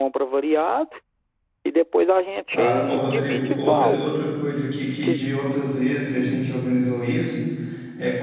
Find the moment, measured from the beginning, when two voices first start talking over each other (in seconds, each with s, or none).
2.5 s